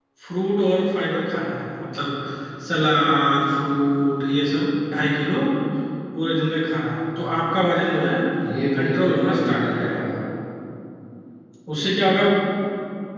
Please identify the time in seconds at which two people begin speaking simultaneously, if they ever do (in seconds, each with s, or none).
8.7 s